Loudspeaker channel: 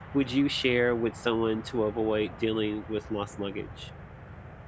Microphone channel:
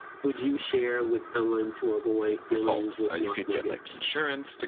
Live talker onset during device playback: 2 s

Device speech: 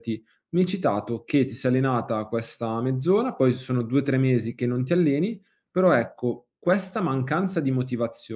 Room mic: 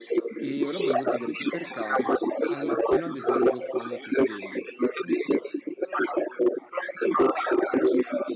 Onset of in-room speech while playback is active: 0 s

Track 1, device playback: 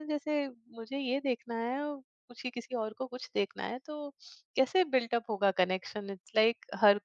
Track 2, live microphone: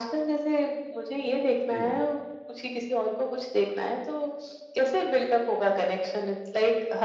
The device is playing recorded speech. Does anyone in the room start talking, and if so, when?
2 s

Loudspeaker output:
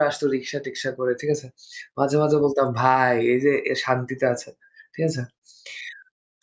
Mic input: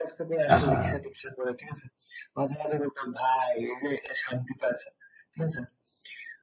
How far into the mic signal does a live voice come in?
1 s

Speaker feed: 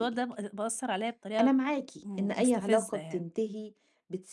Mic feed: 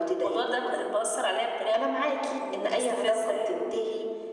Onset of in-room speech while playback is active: none

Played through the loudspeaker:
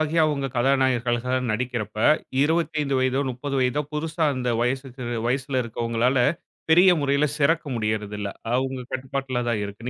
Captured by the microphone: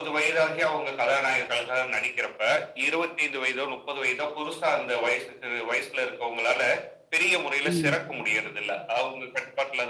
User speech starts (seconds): 8 s

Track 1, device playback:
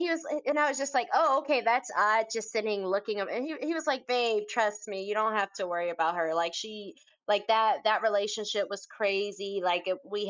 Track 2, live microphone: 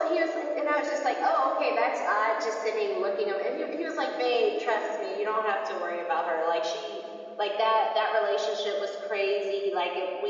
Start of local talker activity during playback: none

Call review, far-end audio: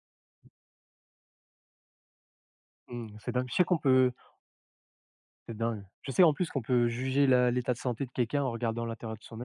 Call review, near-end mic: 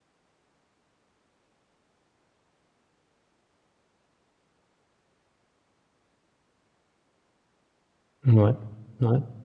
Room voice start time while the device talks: 8 s

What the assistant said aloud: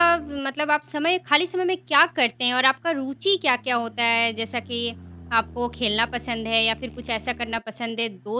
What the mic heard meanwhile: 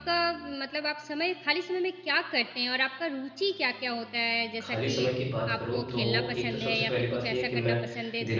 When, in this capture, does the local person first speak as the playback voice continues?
5 s

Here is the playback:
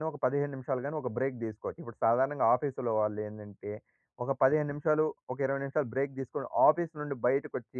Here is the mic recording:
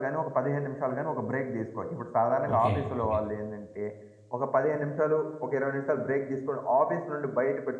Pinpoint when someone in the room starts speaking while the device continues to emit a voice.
3 s

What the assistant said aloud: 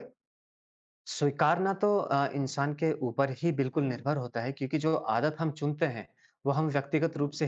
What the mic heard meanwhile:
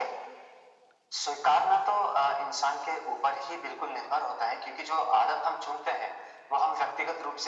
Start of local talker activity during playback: none

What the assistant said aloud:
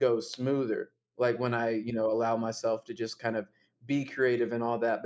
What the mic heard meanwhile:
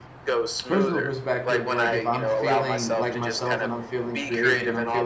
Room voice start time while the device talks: 1 s

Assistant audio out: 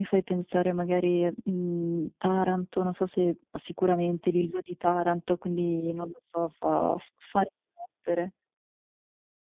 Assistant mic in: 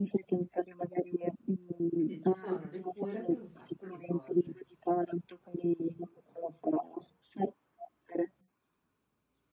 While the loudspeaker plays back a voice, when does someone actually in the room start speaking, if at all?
2 s

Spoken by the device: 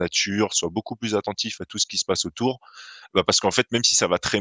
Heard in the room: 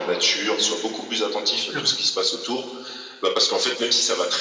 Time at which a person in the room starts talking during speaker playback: 1 s

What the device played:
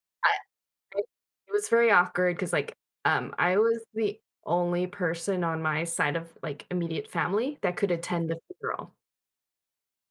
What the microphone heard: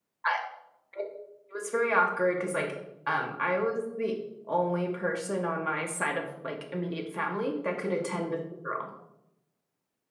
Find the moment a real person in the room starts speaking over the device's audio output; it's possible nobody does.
none

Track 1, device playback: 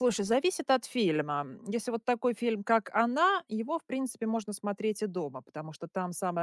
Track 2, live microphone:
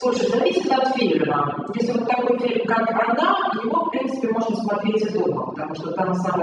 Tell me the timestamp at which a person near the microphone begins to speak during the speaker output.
none

